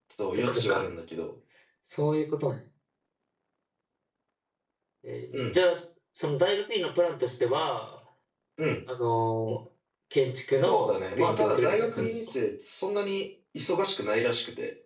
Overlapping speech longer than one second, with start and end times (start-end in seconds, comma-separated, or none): 10.6-12.1